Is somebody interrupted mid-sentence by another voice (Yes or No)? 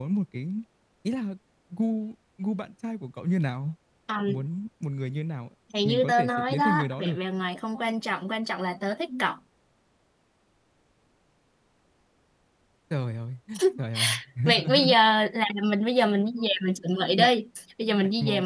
Yes